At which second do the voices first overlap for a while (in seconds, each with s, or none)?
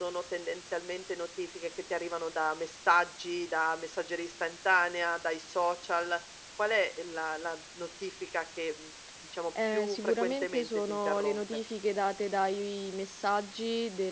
9.6 s